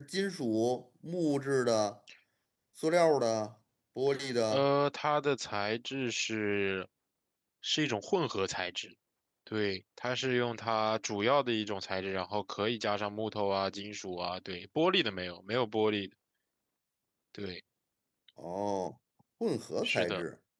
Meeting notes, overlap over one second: none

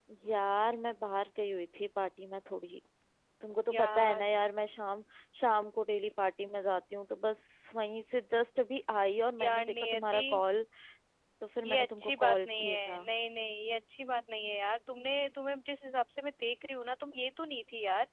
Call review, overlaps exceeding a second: present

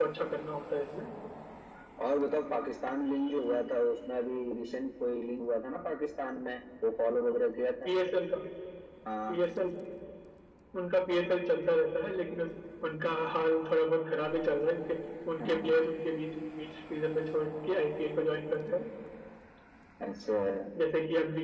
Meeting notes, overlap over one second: none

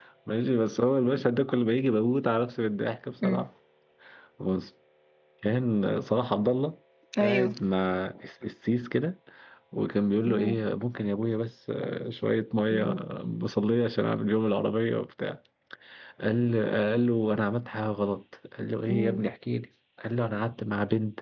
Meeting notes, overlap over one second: none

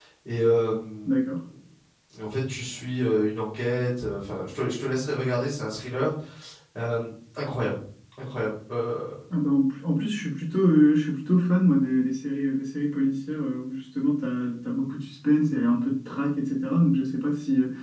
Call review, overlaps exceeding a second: none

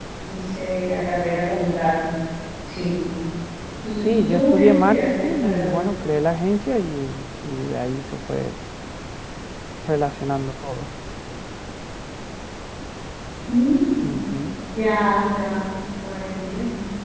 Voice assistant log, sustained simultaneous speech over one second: present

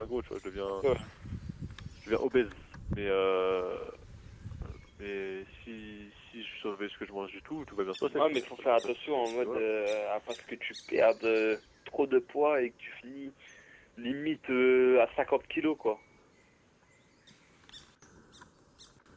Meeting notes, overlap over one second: present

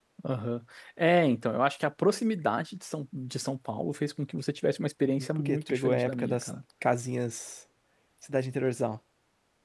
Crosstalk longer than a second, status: present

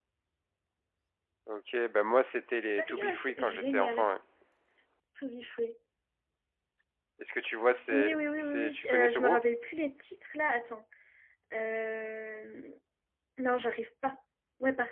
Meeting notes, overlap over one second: present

